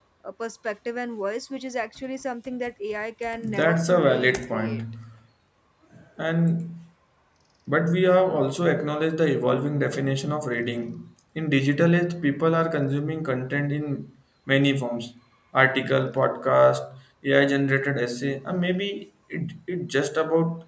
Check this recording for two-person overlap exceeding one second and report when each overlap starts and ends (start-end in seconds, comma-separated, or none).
3.4-4.8